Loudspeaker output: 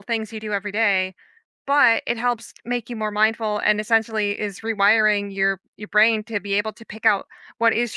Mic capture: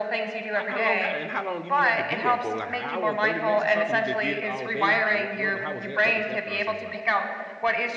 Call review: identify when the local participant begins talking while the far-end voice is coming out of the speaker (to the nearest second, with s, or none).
1 s